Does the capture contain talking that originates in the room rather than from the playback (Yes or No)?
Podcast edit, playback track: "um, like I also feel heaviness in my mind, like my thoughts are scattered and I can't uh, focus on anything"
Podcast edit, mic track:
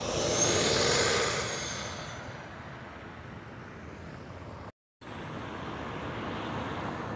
No